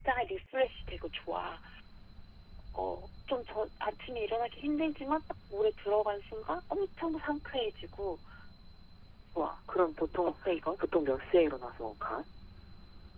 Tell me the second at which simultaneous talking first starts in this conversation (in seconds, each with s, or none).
none